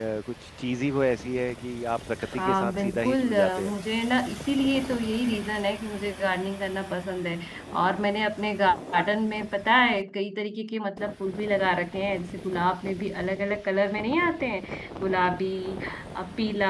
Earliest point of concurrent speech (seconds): 2.2 s

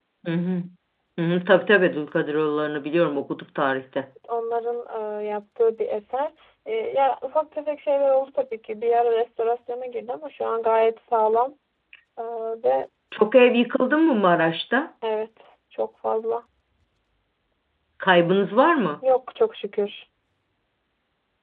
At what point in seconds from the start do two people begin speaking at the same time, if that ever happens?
none

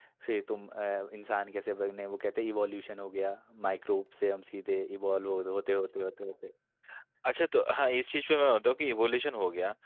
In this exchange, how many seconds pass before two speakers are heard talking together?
none

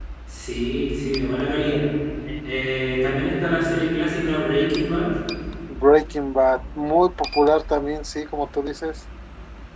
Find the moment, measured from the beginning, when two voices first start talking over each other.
none

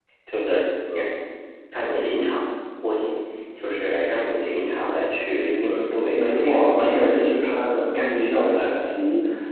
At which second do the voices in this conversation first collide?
6.2 s

